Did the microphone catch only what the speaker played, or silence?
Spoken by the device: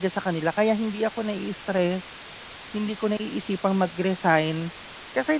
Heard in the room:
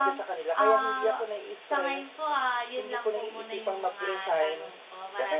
No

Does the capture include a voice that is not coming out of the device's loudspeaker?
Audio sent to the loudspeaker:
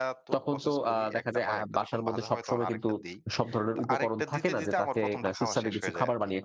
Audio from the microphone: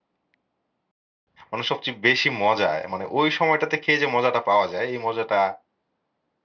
Yes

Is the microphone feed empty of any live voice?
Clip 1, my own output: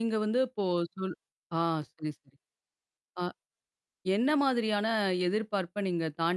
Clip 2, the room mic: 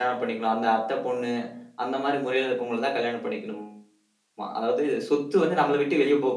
No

